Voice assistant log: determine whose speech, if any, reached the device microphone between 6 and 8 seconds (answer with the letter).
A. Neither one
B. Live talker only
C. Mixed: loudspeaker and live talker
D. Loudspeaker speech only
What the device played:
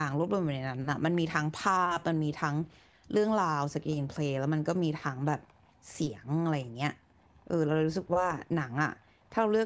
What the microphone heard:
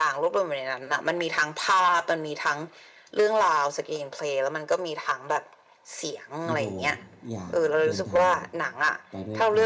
C